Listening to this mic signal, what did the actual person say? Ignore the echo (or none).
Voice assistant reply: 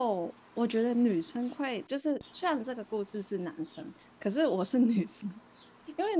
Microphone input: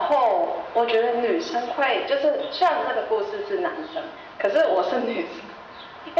none